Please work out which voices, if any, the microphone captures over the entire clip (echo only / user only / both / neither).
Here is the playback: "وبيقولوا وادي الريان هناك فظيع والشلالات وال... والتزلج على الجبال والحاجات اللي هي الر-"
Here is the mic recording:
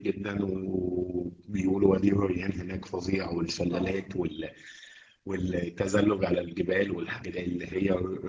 both